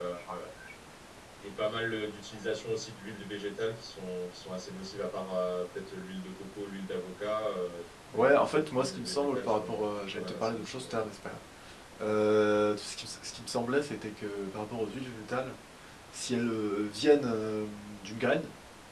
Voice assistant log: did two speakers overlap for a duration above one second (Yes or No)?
Yes